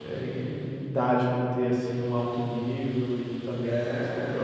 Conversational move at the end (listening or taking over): taking over